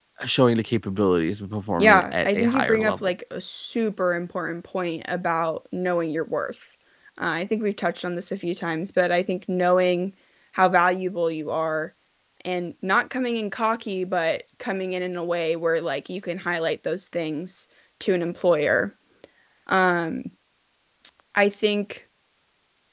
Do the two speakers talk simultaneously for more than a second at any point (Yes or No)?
Yes